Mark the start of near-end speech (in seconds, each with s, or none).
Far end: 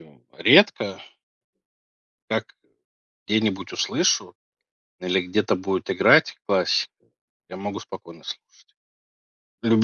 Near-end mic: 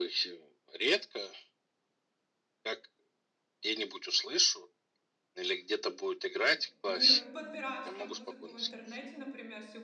6.4 s